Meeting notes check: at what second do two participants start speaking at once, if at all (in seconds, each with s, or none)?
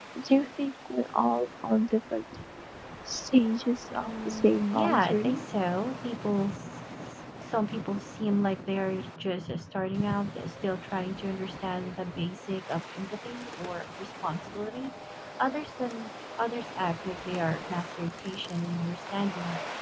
3.9 s